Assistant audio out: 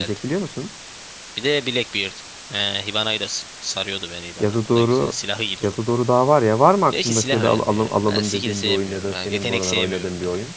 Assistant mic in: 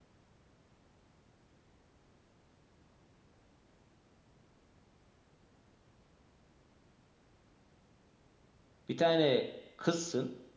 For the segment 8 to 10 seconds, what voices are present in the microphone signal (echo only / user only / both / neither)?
user only